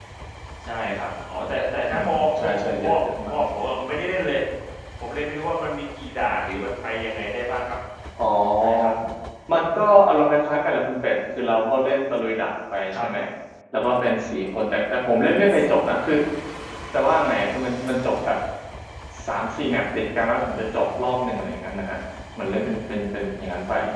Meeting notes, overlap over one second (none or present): present